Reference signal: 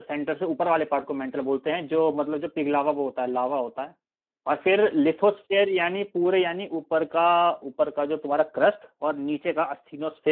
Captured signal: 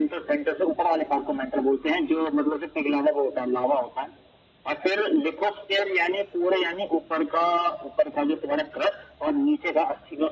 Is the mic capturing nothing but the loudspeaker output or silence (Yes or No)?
Yes